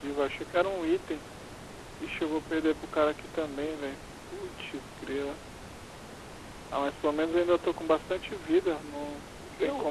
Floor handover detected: Yes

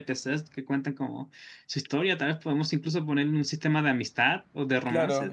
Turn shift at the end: Yes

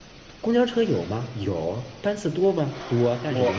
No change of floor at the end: Yes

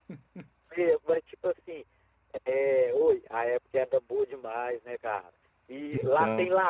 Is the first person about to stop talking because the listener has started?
No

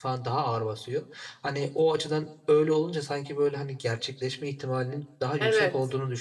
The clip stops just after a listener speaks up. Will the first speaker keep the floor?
Yes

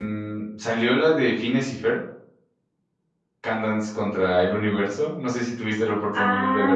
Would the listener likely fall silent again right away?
No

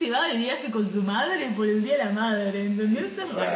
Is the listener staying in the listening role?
No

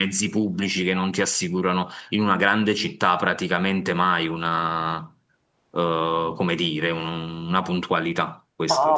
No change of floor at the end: No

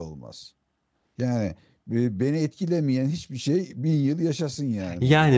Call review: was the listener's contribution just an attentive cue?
No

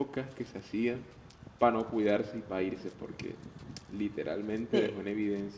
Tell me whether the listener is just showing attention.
Yes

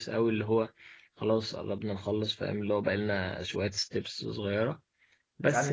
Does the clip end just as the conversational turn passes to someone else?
Yes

